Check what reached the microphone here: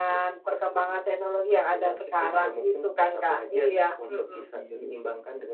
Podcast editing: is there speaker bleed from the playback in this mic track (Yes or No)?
Yes